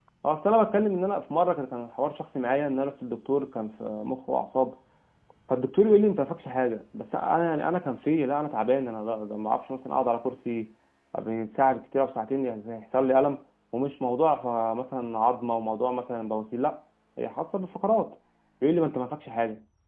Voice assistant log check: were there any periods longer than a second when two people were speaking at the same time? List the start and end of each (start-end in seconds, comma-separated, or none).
none